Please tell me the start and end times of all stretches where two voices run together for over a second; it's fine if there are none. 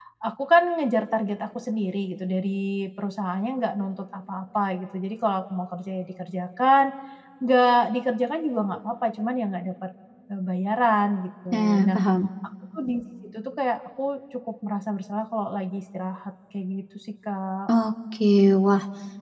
none

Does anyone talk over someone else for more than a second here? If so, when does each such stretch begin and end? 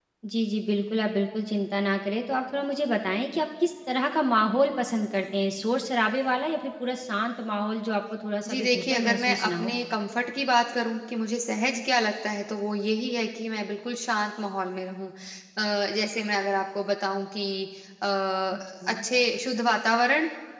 8.5-9.8

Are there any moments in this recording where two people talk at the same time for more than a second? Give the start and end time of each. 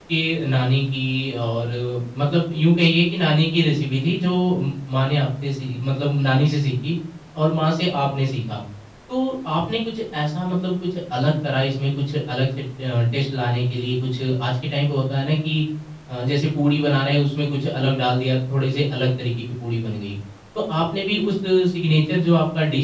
none

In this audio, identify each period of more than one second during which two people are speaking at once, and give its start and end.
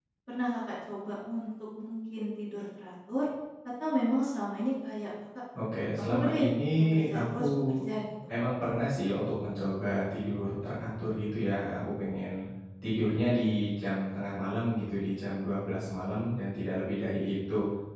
5.9-7.8

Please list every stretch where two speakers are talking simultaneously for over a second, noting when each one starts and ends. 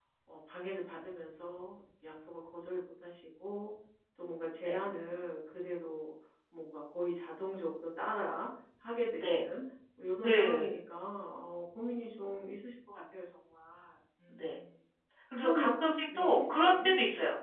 15.4-16.9

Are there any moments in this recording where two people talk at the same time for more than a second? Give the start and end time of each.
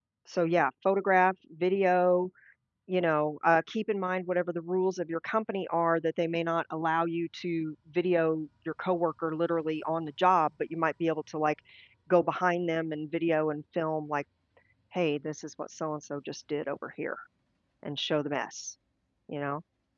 none

